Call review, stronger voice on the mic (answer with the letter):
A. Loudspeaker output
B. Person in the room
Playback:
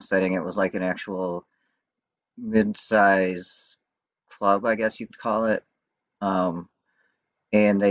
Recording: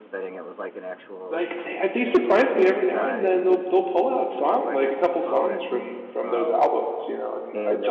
B